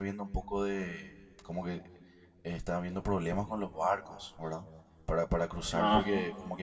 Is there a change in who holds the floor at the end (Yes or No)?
No